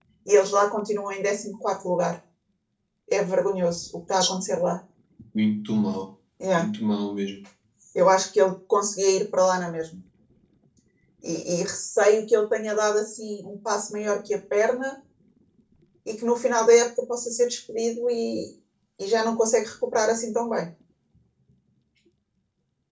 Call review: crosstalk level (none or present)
none